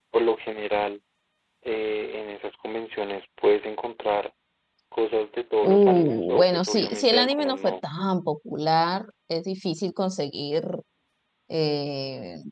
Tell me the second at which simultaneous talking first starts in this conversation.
5.6 s

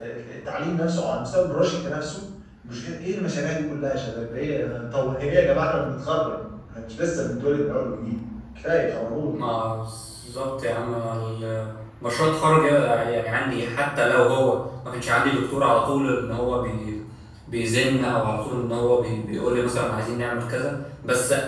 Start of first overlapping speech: none

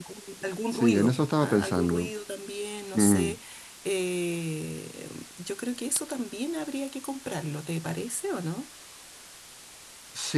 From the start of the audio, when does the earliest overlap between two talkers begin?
0.7 s

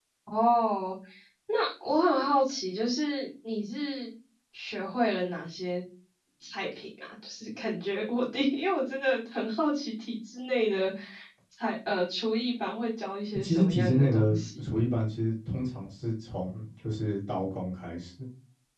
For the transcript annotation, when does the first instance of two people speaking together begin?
13.3 s

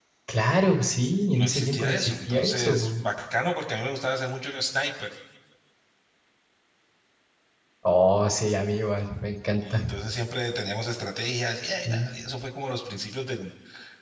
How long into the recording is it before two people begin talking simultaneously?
1.4 s

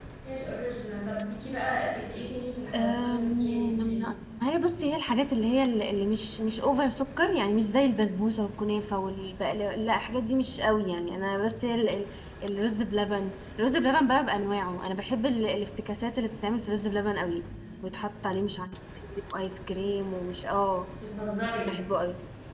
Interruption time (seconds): 2.7 s

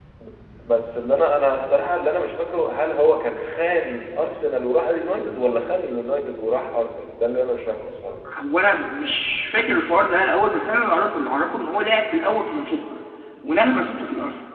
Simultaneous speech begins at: none

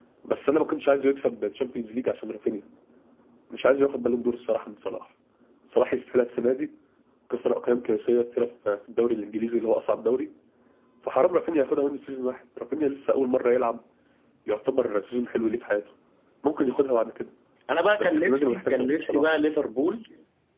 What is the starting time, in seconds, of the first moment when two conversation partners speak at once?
18.0 s

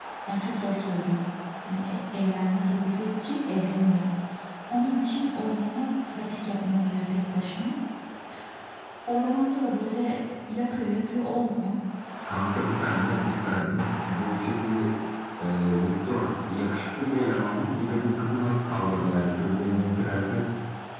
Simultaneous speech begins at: none

